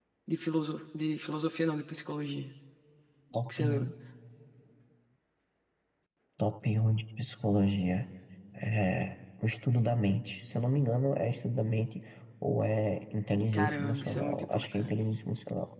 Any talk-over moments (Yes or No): Yes